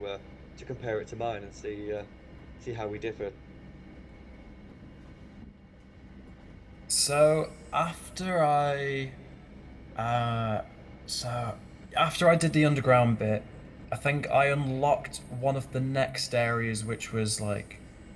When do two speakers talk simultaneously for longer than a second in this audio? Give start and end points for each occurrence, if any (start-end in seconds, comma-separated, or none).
none